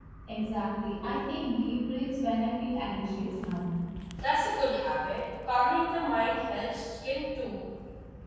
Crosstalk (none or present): none